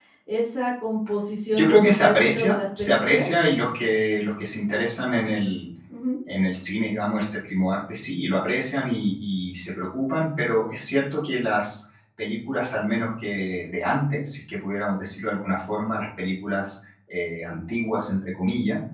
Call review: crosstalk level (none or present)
present